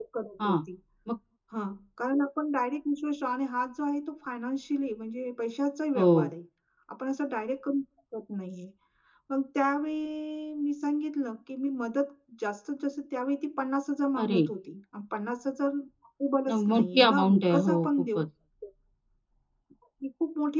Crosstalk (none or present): present